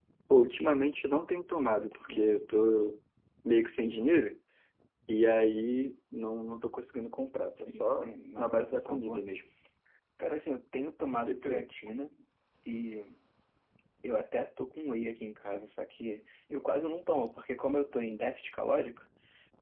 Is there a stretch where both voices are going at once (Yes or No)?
Yes